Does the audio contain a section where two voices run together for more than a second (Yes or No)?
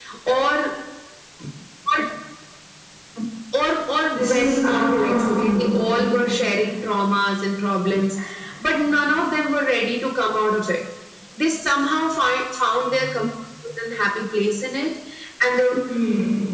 Yes